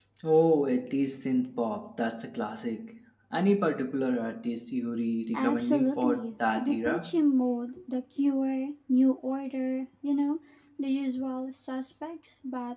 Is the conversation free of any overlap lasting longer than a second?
No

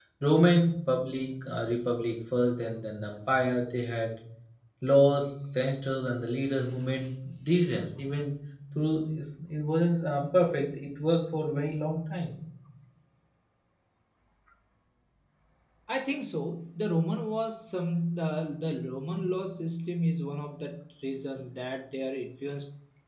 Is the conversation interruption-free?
Yes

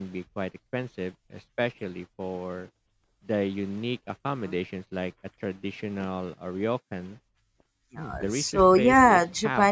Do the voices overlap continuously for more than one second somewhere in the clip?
Yes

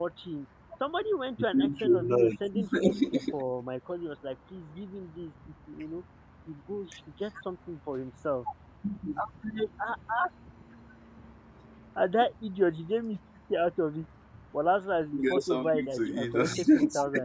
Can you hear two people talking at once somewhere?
Yes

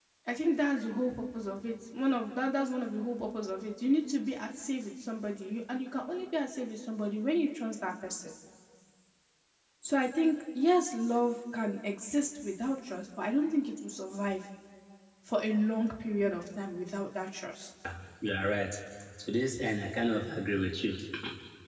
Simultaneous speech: No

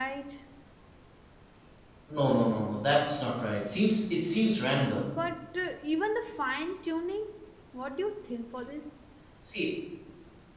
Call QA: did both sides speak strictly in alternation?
Yes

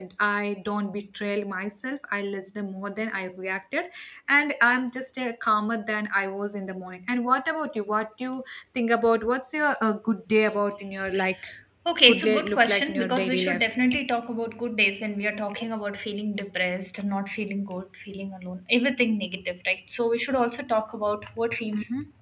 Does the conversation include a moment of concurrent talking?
Yes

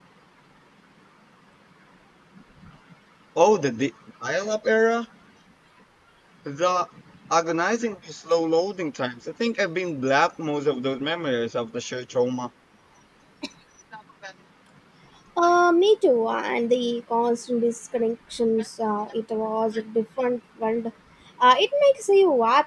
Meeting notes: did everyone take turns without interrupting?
Yes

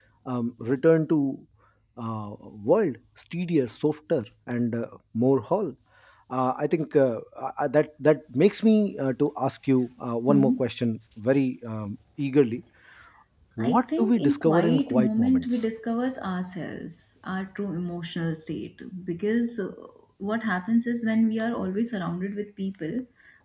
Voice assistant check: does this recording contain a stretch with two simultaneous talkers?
Yes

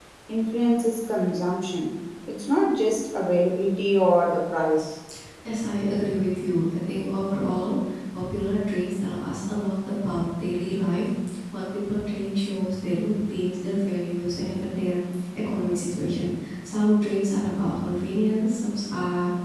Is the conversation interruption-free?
Yes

